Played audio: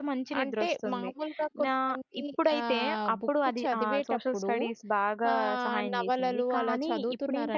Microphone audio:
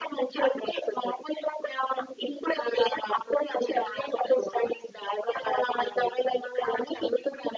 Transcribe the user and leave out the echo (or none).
none